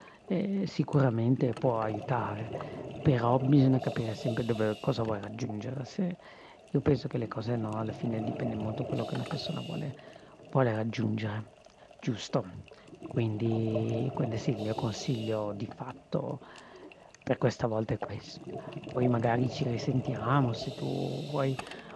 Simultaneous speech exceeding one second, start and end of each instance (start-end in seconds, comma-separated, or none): none